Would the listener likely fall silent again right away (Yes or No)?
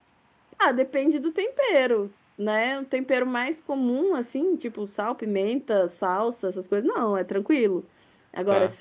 Yes